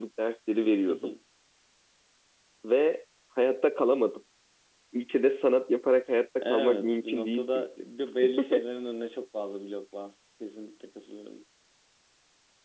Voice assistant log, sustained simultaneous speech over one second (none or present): present